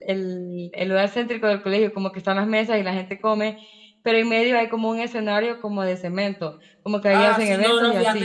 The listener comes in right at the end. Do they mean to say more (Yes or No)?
Yes